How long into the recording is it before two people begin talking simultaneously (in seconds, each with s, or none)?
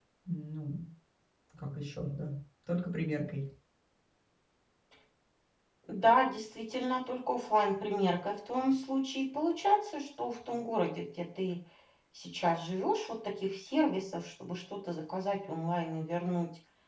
none